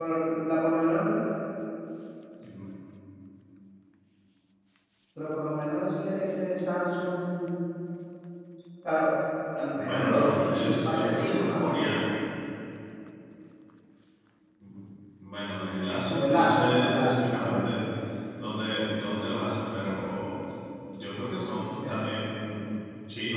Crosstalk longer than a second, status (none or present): present